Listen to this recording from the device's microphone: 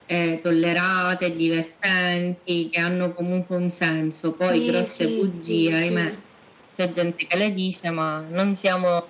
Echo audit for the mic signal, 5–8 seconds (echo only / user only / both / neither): both